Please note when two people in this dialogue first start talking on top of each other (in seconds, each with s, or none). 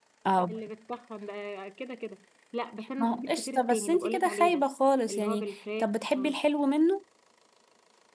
3.0 s